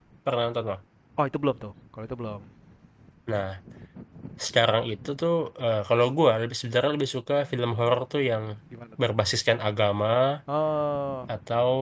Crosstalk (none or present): none